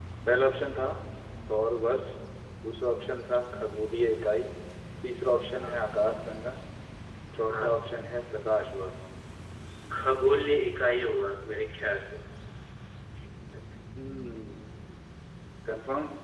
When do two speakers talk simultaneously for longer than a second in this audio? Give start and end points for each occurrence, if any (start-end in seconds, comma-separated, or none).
none